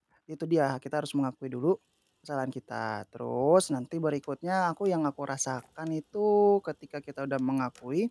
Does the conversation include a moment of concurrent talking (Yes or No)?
No